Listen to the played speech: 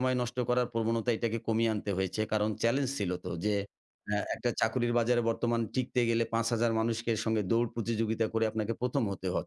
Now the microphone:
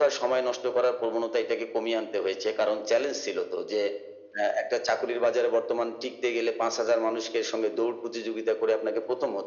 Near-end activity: none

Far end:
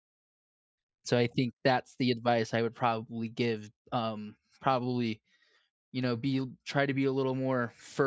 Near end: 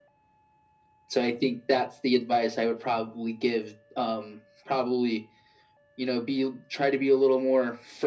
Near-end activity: none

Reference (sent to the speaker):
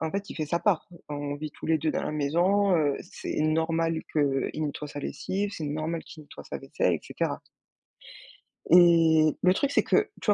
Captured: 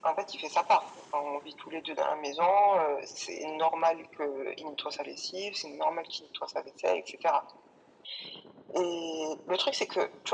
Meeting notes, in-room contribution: none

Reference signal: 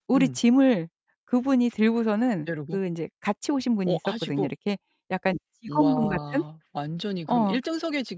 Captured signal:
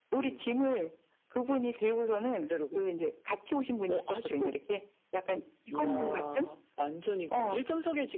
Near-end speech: none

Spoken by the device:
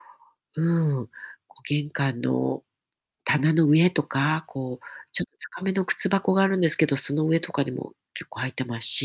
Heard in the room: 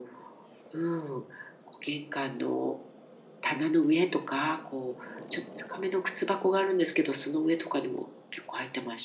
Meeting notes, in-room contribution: none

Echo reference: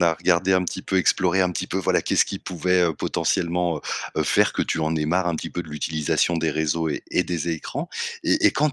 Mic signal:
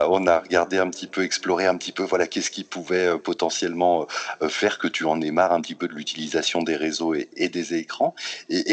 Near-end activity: none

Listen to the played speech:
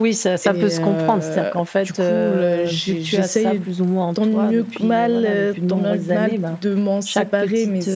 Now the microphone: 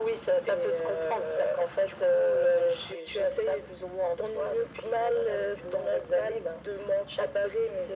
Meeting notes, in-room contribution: none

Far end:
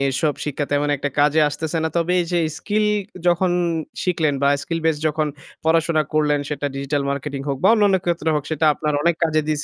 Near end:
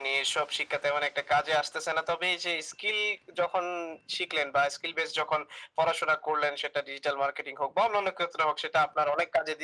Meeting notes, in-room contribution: none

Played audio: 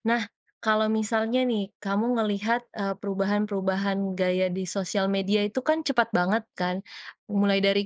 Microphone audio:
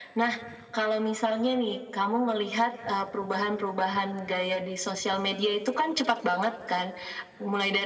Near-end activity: none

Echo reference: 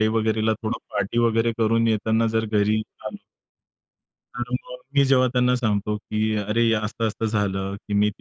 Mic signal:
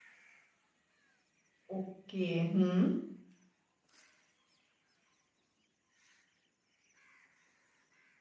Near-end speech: present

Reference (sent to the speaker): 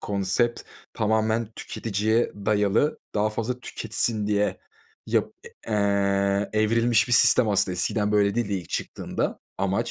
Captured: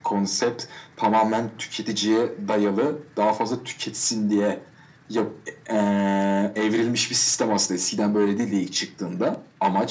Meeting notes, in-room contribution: none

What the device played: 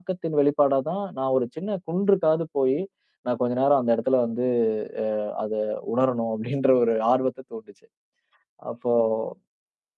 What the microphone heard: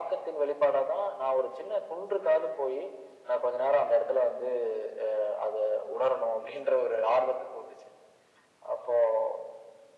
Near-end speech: none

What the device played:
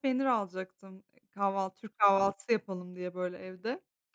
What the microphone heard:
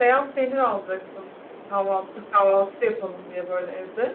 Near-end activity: none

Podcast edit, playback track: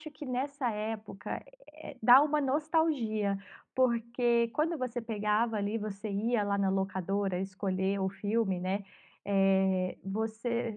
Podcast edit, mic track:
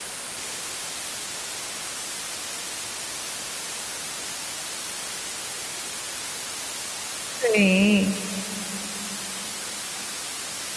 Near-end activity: present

